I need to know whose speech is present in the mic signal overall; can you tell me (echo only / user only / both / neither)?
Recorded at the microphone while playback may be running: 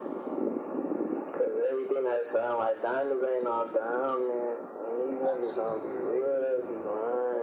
both